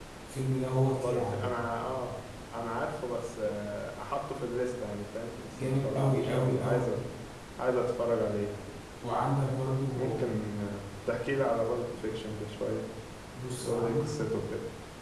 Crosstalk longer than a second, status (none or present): present